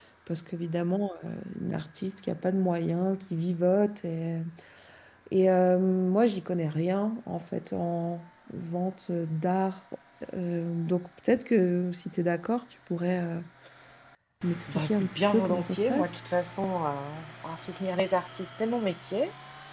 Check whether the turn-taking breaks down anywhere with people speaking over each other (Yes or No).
Yes